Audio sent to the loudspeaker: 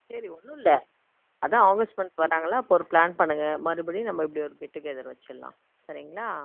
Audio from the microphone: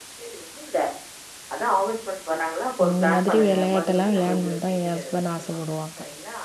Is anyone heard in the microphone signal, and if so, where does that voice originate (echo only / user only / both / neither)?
both